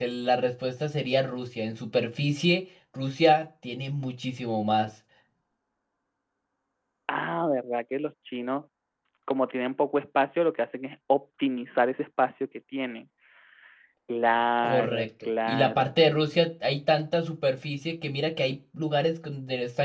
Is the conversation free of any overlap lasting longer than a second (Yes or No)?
No